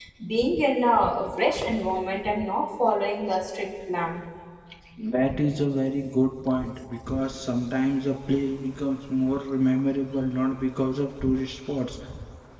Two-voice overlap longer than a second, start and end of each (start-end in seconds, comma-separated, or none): none